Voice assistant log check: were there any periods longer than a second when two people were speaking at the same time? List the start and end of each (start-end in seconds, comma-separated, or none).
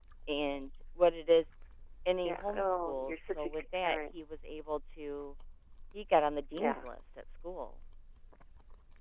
2.2-4.0